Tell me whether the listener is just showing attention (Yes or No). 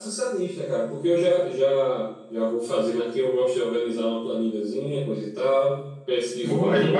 No